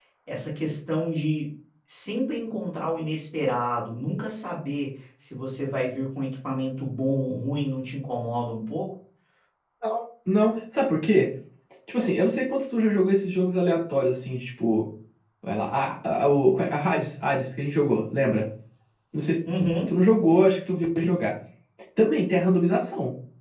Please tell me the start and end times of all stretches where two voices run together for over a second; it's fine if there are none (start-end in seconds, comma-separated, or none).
none